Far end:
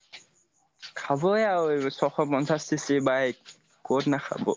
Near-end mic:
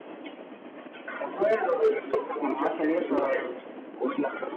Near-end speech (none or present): present